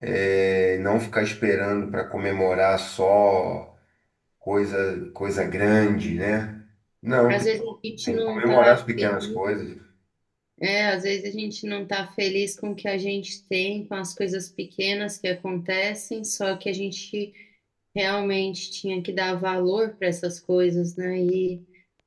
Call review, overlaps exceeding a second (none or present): present